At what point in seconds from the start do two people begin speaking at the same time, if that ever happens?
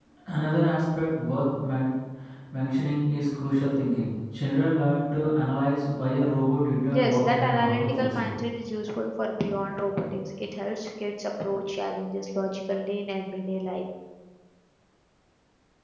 6.9 s

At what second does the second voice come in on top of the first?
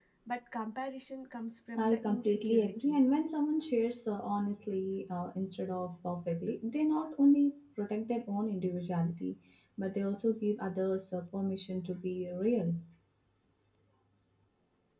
1.8 s

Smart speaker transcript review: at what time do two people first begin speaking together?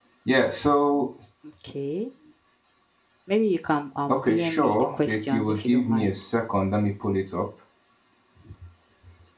4.1 s

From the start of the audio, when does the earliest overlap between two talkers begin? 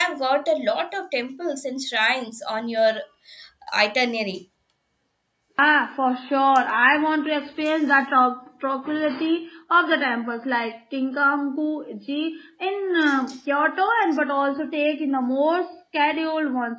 none

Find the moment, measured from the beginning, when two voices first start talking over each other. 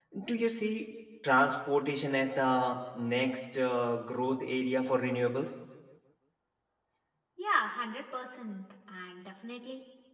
none

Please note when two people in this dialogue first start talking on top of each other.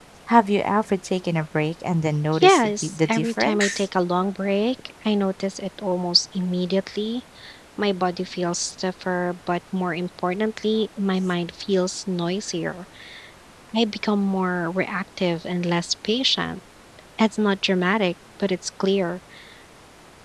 2.3 s

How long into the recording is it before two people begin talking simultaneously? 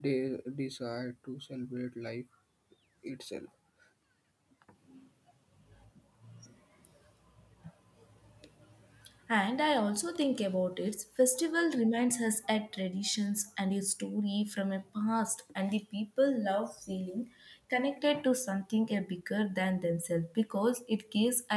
none

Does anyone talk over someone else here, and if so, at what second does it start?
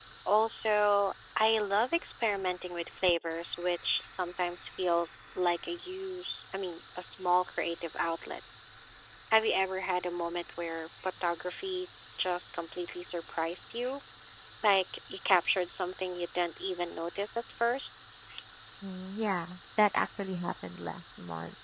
none

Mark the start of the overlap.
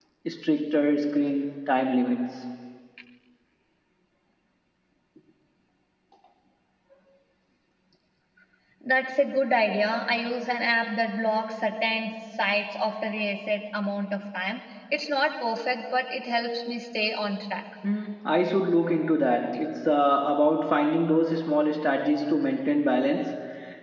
none

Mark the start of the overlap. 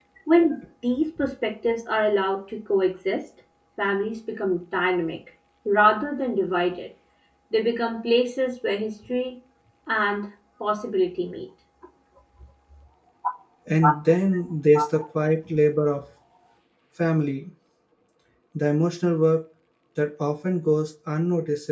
none

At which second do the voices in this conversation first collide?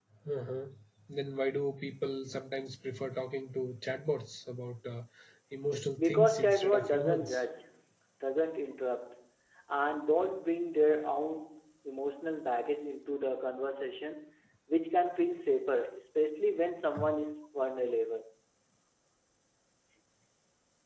6.0 s

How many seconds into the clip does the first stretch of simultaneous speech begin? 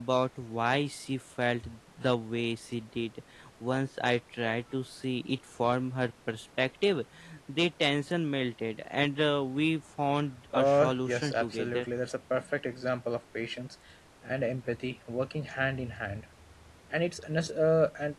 10.5 s

